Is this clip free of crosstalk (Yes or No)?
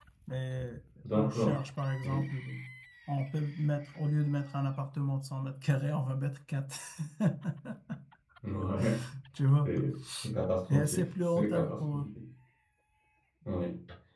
No